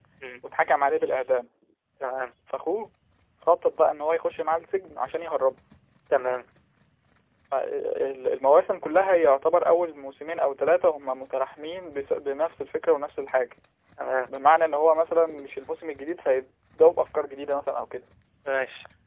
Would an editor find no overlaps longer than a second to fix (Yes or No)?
Yes